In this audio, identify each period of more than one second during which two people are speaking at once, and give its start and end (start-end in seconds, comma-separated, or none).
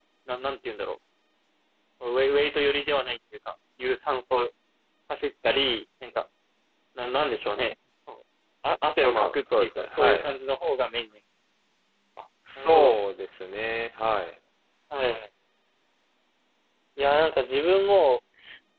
9.0-10.3